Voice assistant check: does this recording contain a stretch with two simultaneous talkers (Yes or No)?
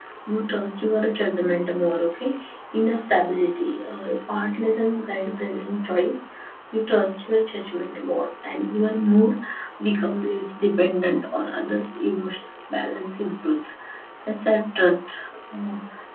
No